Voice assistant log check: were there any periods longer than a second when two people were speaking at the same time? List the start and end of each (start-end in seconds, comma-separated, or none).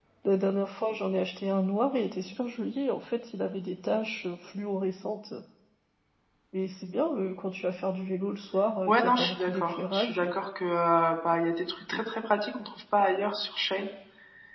8.9-10.2